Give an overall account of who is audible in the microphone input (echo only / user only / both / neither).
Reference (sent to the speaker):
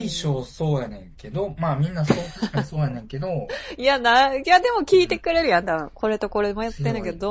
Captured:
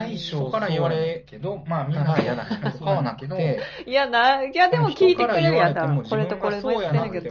both